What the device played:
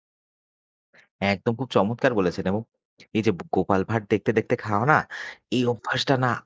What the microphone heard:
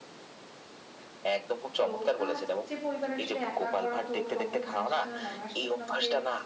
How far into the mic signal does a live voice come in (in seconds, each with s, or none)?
1.8 s